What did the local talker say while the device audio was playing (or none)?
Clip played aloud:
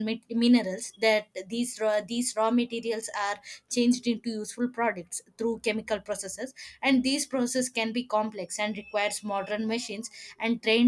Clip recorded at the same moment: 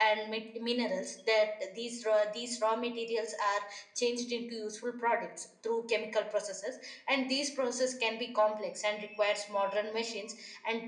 none